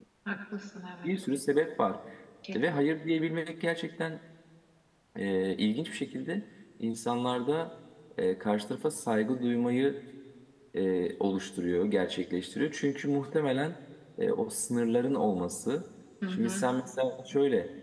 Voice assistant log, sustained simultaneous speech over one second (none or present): none